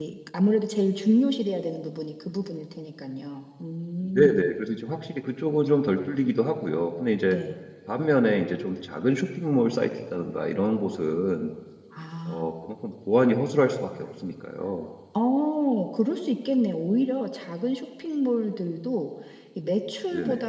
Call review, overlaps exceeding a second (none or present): none